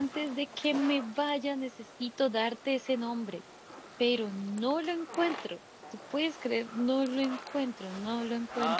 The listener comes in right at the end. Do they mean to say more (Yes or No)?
Yes